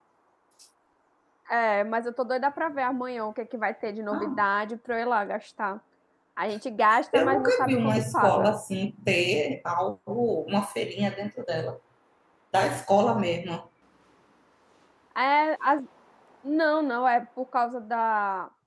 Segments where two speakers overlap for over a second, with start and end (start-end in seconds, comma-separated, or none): 7.1-8.6